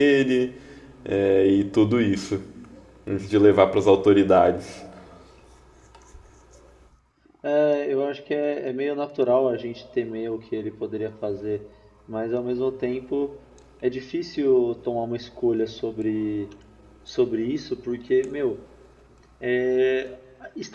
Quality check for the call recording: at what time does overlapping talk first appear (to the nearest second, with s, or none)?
none